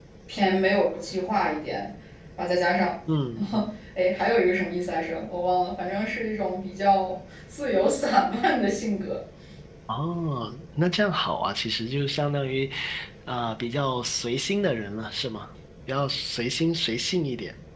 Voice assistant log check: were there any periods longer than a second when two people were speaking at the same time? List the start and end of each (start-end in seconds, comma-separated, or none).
none